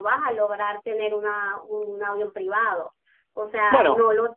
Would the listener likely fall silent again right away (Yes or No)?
Yes